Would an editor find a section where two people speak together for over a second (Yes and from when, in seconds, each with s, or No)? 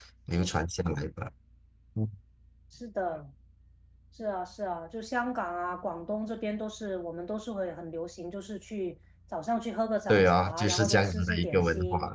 Yes, from 10.1 s